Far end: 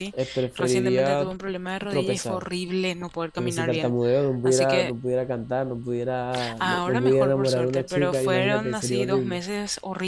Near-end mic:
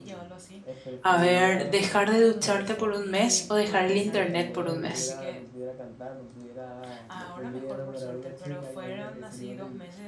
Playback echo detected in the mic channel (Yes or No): Yes